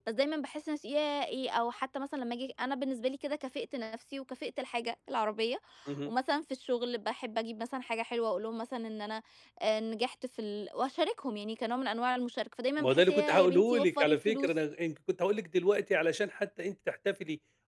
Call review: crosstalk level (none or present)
present